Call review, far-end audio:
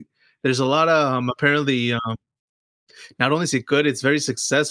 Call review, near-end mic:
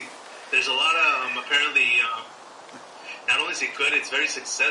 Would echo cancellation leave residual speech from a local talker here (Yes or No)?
No